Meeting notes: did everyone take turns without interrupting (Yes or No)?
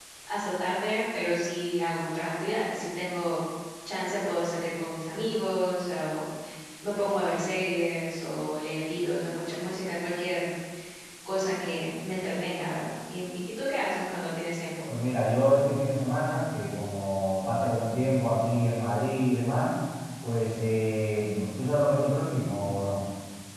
Yes